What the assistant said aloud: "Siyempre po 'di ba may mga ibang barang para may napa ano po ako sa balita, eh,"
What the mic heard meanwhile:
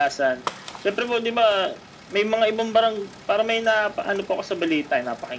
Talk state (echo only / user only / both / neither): echo only